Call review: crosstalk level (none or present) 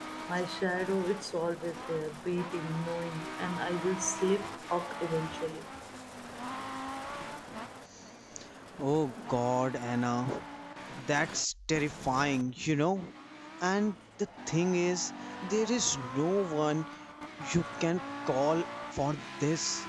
none